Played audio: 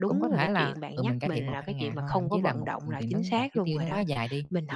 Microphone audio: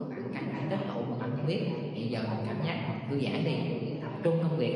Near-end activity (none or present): present